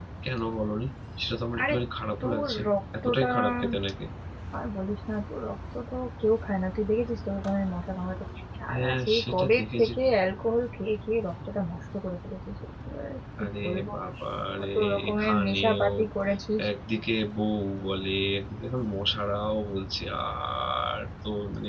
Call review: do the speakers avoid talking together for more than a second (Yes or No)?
No